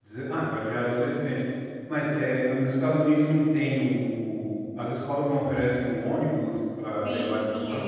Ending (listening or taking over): taking over